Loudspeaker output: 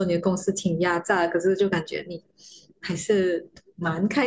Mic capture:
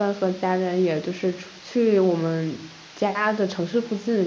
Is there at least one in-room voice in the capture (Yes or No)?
Yes